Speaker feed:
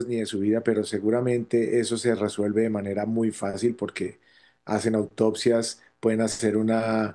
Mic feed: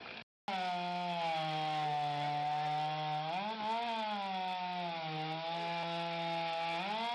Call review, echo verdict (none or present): none